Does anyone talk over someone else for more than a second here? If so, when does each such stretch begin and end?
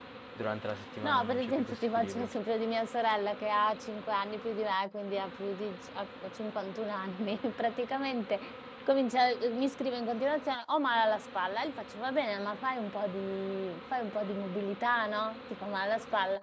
1.0-2.3

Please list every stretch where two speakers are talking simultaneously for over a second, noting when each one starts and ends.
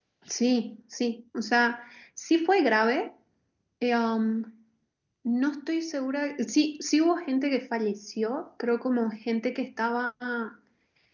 none

